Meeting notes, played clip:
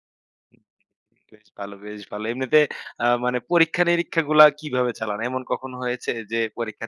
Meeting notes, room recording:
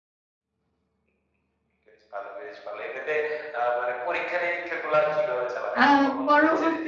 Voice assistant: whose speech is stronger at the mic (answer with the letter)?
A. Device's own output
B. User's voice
B